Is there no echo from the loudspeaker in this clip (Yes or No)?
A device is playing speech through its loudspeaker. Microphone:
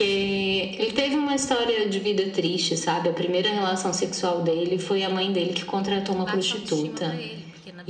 No